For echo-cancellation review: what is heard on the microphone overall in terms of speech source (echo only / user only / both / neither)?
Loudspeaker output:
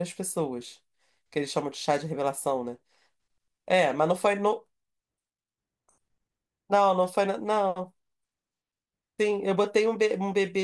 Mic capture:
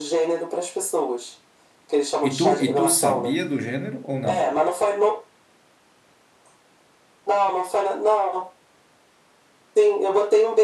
both